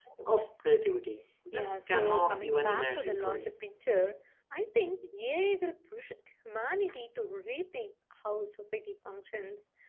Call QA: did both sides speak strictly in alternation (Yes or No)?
No